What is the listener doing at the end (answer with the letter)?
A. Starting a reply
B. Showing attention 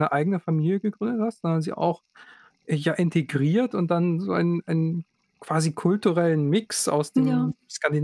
B